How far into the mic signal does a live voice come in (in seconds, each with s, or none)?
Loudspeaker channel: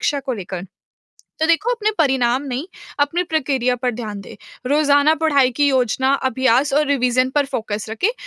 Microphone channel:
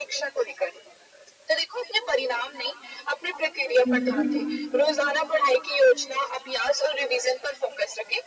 3.9 s